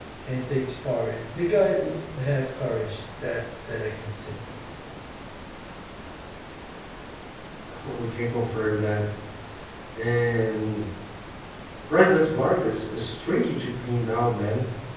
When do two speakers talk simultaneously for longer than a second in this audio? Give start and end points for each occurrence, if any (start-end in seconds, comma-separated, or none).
none